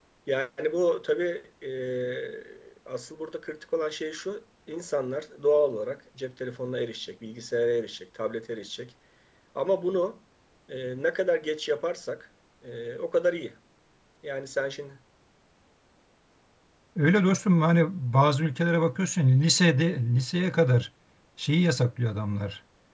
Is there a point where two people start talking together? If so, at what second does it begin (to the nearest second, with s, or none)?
none